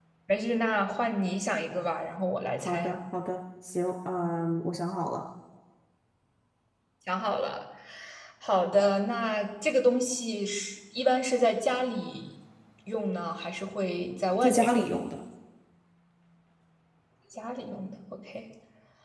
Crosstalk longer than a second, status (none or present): none